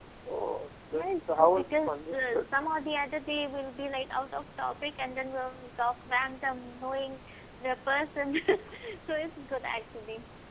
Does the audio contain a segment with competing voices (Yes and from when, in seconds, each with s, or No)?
Yes, from 0.9 s